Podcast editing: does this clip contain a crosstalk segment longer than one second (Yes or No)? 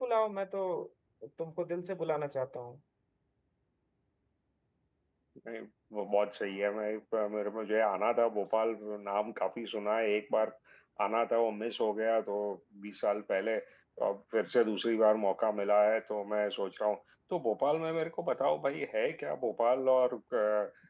No